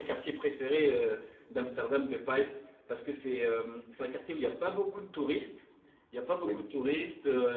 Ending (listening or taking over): listening